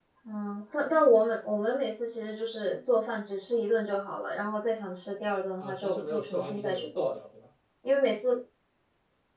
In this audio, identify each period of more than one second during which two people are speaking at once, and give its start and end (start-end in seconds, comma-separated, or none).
5.6-7.1